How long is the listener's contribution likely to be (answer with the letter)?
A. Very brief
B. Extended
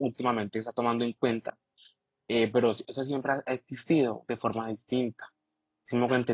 A